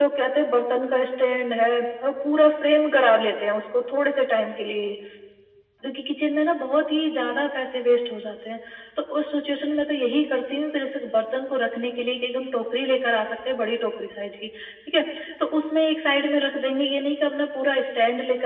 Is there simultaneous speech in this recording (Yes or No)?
No